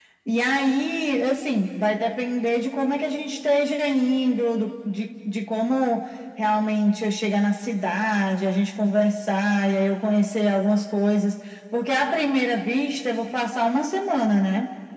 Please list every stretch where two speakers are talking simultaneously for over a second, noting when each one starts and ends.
none

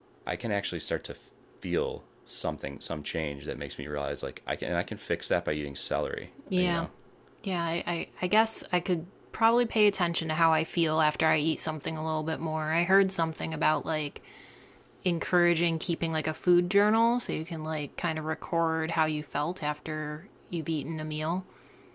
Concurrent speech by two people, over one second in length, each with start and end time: none

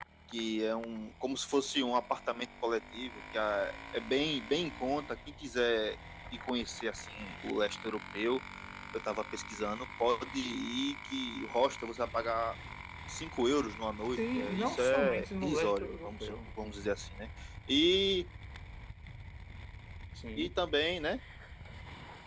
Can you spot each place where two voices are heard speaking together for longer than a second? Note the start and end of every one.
14.1-16.3

